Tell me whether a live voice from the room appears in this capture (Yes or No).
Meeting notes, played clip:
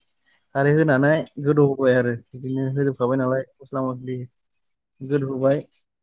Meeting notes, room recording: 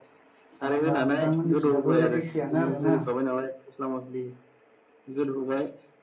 Yes